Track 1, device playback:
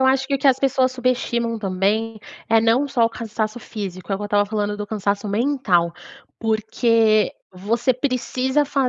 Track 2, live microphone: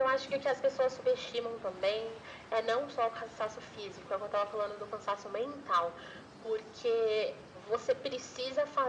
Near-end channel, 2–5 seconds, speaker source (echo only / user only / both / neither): echo only